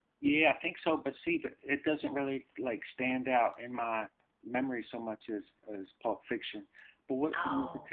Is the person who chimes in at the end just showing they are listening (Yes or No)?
Yes